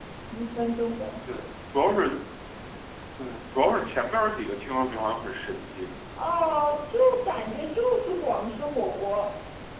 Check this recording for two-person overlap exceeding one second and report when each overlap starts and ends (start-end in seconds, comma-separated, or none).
none